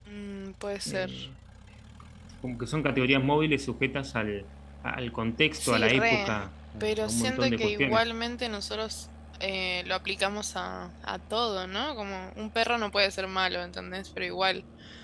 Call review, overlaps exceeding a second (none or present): present